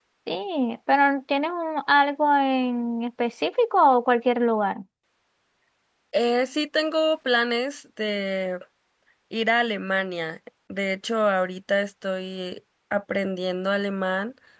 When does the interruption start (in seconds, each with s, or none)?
none